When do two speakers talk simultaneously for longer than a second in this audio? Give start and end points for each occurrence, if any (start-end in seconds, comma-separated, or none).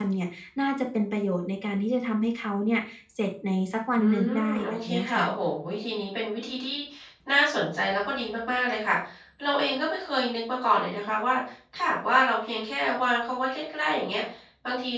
4.0-5.2